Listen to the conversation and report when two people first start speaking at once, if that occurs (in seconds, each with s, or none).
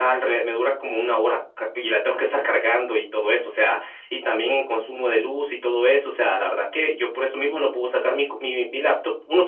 none